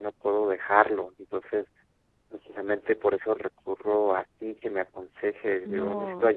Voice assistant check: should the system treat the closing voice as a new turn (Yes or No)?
Yes